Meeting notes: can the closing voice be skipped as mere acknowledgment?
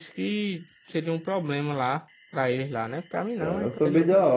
No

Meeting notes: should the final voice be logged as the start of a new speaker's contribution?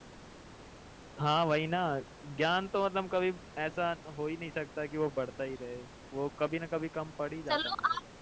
Yes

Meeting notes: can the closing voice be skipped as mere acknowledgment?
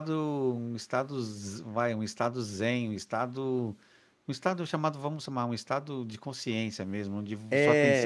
Yes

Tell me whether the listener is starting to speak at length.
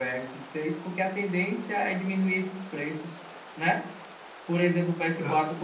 No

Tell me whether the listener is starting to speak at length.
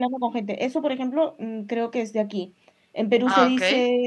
No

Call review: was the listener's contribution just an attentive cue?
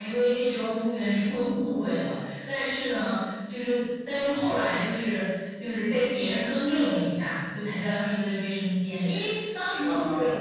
Yes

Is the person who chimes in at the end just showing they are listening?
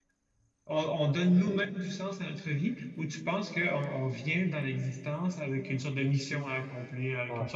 Yes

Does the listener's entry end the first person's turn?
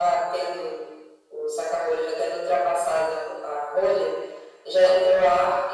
No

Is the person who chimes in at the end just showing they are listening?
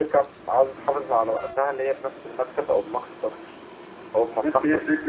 No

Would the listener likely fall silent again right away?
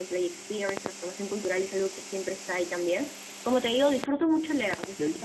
No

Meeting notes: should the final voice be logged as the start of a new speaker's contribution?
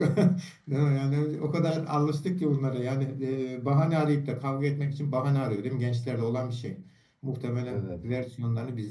No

